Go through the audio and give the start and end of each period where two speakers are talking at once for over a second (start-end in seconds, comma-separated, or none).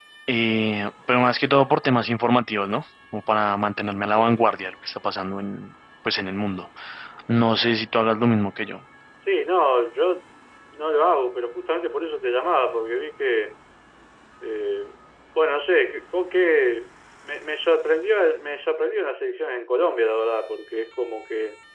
none